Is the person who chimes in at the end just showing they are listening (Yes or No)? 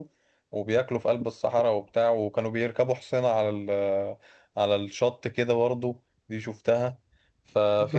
Yes